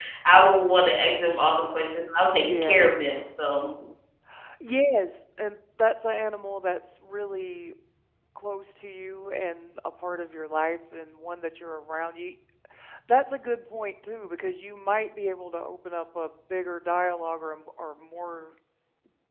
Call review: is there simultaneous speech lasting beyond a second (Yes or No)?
No